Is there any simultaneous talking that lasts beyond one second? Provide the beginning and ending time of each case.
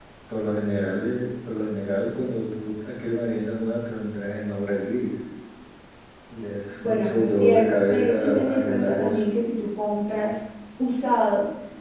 6.8-9.2

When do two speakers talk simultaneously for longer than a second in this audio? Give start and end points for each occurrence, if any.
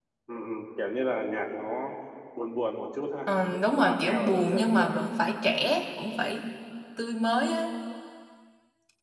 3.8-5.0

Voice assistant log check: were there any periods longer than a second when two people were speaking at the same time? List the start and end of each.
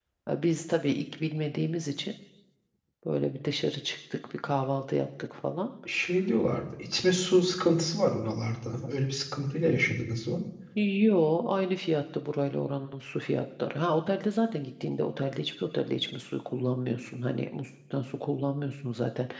none

